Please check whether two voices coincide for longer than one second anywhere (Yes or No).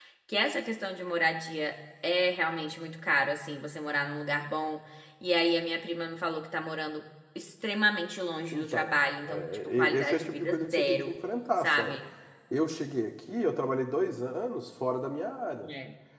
Yes